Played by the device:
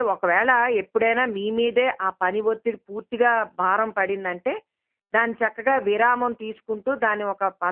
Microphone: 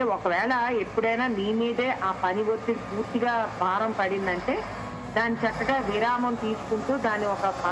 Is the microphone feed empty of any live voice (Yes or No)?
Yes